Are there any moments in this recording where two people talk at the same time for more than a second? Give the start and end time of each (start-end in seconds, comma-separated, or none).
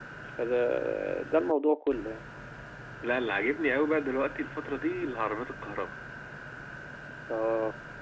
none